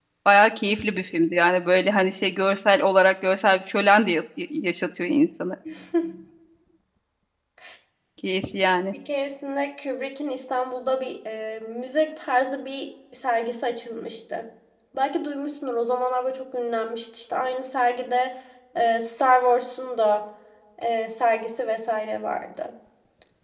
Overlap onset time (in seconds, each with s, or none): none